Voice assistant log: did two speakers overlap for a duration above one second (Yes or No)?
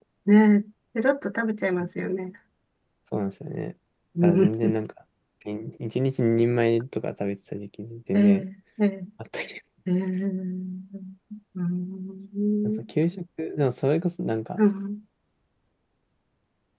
No